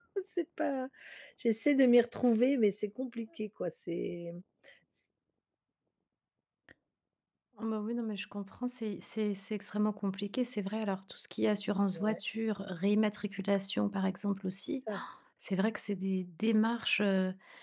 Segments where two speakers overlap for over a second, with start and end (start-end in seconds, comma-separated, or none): none